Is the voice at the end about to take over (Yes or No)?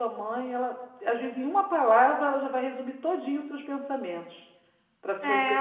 Yes